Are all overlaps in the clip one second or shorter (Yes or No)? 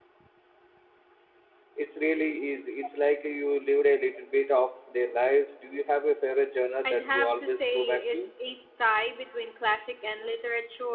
No